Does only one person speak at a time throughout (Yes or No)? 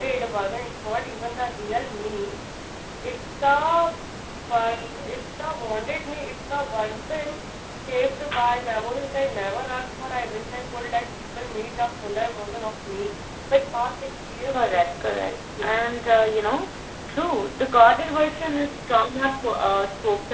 No